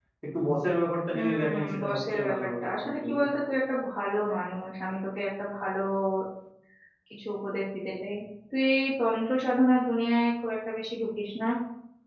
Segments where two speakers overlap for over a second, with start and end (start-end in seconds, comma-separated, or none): 1.2-3.2